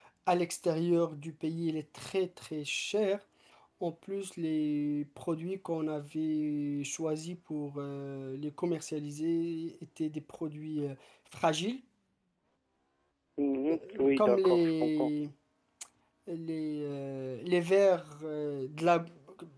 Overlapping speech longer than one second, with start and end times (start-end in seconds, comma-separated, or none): 13.7-15.1